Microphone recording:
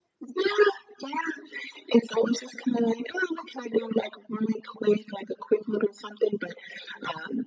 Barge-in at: none

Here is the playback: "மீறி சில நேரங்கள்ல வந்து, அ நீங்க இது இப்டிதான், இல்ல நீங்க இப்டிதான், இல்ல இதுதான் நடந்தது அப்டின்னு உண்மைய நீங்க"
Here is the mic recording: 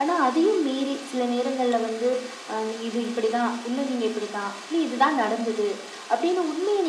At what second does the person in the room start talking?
none

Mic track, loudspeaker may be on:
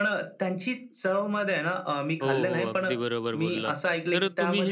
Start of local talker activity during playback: 2.2 s

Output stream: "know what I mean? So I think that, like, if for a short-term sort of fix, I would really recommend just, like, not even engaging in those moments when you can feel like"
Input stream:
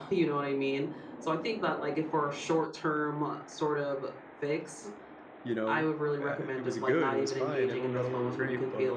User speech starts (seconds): 5.4 s

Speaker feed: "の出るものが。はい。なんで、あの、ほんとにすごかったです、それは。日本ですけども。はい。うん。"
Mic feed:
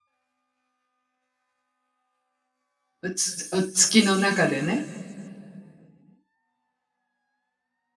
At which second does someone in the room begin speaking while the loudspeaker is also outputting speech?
3.0 s

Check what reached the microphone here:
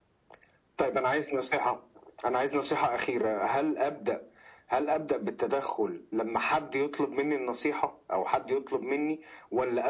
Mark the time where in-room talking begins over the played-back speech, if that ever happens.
none

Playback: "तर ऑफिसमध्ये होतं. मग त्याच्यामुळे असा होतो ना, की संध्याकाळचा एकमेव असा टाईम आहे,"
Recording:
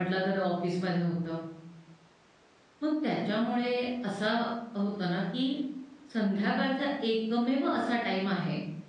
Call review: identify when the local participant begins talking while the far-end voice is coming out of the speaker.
none

